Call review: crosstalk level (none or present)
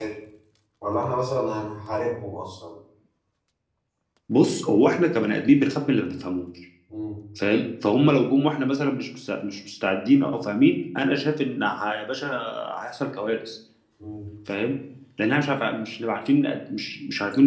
none